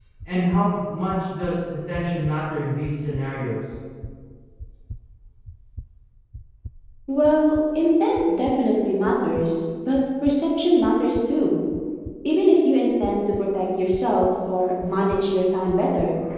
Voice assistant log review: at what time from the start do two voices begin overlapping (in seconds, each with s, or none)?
none